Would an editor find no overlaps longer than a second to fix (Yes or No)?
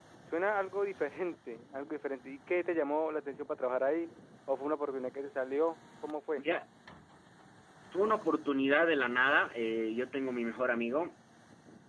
Yes